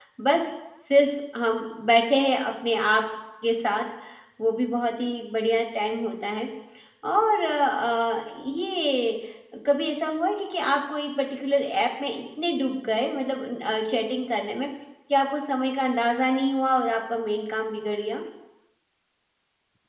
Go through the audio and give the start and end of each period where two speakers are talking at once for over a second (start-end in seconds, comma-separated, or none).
none